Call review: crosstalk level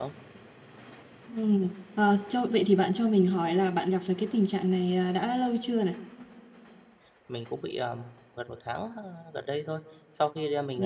none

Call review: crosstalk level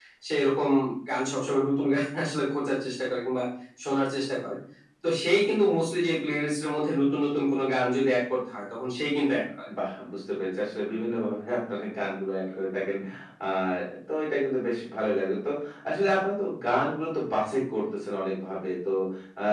none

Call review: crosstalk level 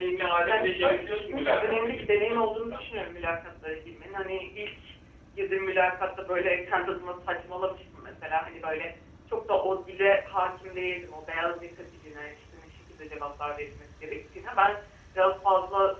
present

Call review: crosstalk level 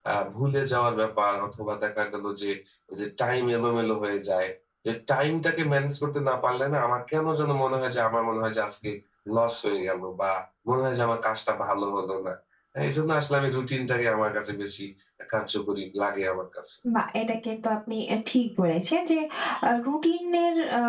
none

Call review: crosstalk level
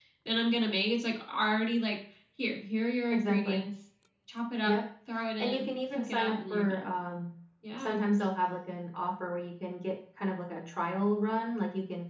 present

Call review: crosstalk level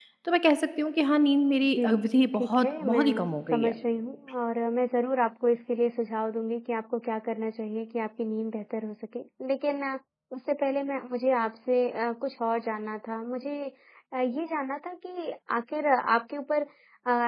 present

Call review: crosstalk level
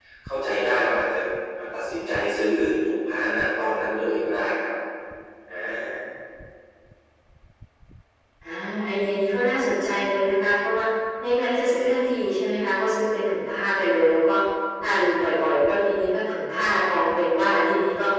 none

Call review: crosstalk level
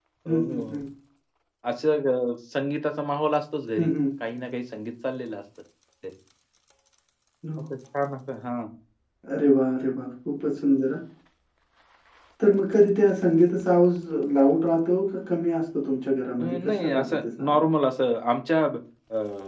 present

